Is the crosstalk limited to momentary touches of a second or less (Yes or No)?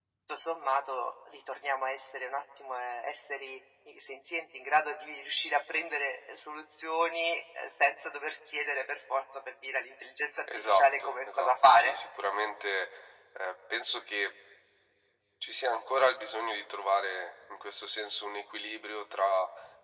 No